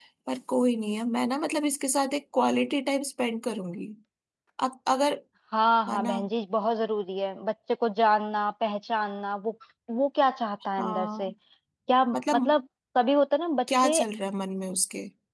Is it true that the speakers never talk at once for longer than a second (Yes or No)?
Yes